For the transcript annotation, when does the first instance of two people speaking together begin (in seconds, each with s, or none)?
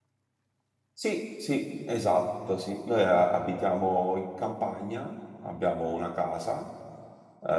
none